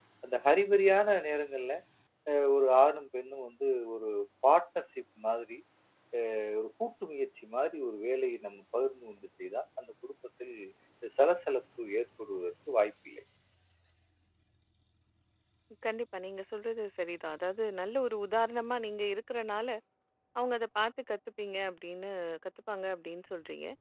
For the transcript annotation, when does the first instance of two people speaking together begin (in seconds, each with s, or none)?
none